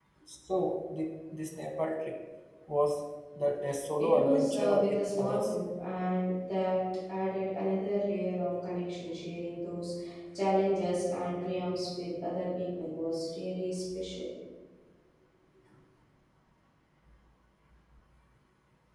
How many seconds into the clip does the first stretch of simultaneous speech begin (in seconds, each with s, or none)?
4.0 s